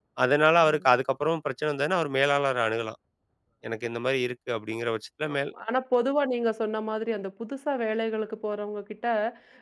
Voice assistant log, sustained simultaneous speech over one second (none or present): none